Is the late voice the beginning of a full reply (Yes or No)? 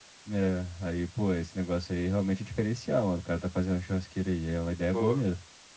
Yes